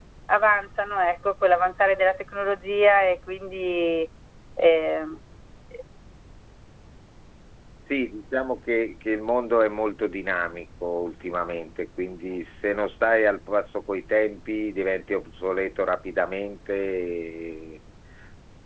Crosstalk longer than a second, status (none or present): none